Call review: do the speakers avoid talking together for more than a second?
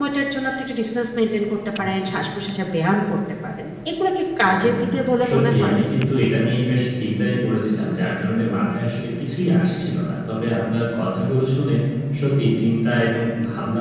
No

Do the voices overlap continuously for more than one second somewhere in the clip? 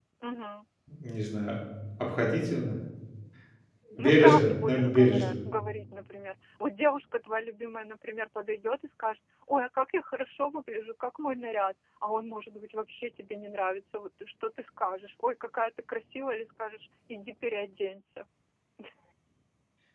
Yes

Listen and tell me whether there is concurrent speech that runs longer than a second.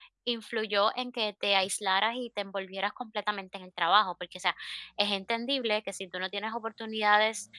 No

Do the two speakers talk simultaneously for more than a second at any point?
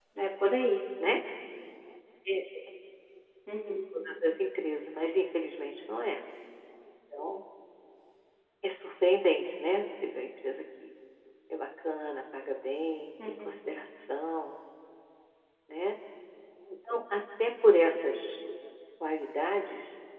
No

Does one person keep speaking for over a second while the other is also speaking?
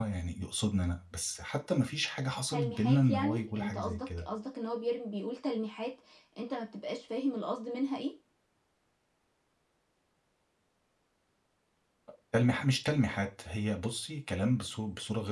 Yes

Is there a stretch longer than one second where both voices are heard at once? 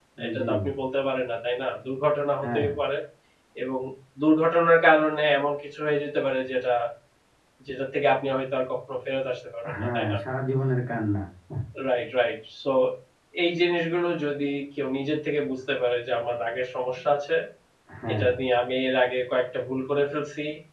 No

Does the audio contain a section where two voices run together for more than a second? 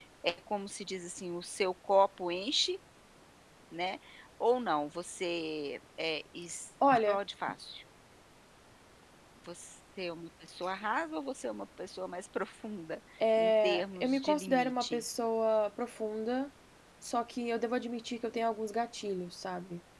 Yes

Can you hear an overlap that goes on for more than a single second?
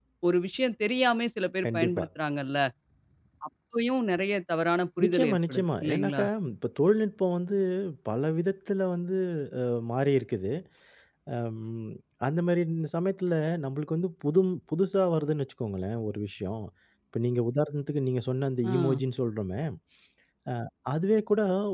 Yes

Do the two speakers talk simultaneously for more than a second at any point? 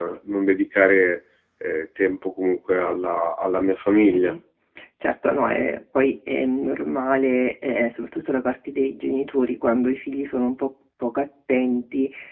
No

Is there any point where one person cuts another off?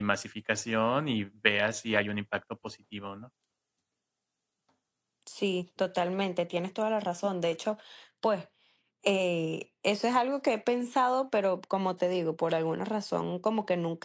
No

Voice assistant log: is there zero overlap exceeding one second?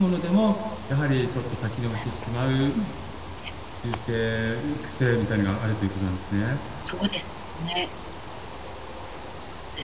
Yes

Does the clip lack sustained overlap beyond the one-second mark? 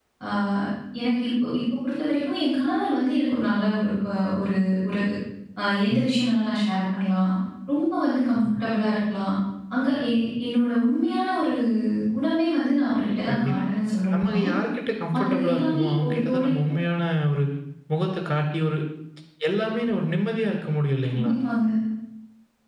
No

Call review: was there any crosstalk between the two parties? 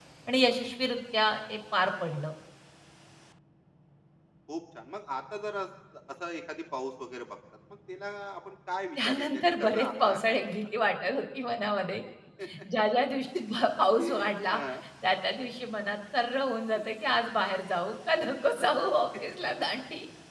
Yes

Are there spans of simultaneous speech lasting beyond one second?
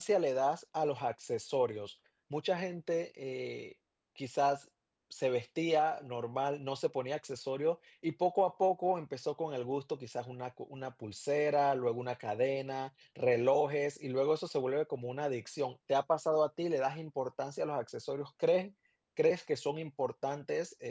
No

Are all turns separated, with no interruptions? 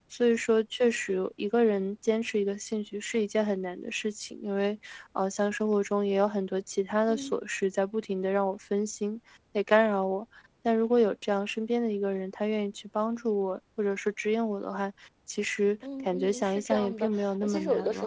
No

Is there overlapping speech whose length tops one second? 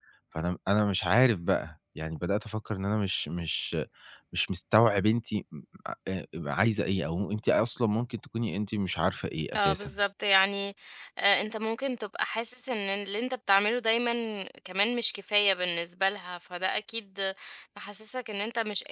No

